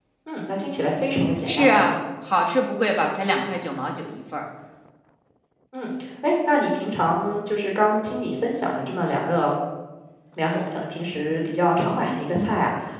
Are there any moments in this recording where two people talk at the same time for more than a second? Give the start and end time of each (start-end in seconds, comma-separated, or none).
none